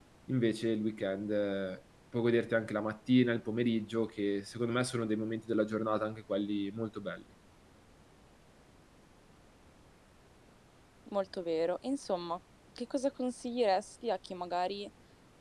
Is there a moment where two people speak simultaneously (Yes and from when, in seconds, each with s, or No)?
No